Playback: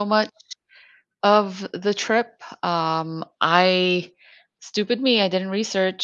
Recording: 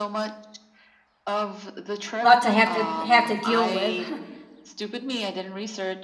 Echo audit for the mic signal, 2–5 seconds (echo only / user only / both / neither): both